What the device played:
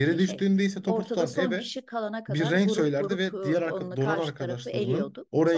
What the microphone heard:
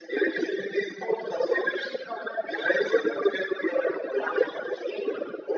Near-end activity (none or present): none